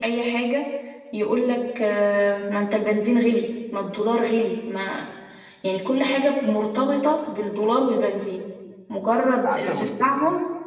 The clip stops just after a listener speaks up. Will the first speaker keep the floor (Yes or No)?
Yes